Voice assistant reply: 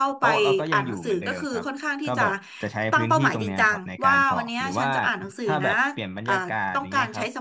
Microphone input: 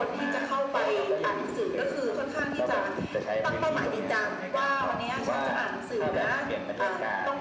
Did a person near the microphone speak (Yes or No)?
No